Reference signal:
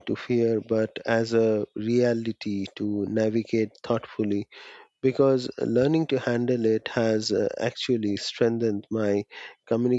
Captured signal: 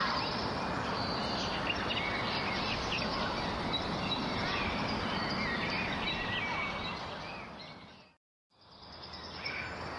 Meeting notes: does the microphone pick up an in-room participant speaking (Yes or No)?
No